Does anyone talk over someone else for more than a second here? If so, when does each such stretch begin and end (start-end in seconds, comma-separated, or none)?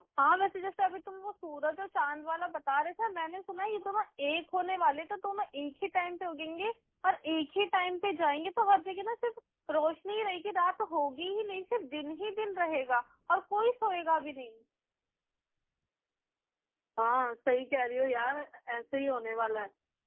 none